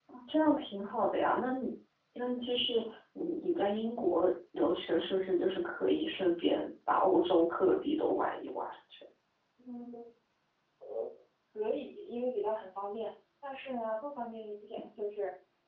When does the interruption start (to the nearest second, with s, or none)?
none